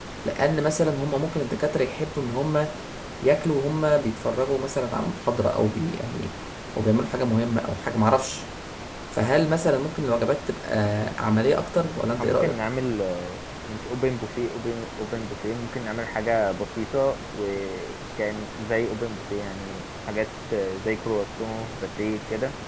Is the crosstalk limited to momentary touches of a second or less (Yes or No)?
Yes